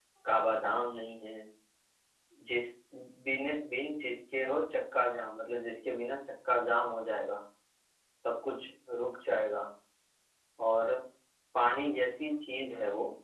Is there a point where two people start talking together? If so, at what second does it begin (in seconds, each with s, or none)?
none